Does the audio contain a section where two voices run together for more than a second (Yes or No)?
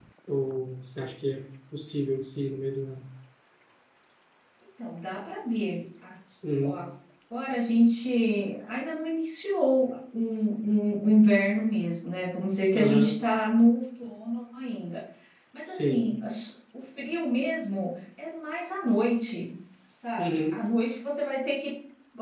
No